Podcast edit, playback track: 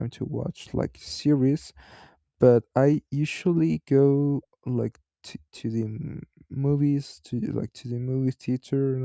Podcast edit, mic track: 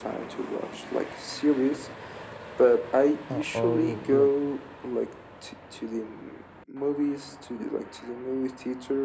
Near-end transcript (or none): are, are like